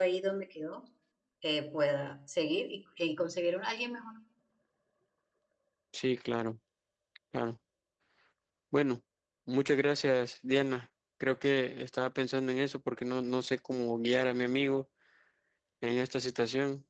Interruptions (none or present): none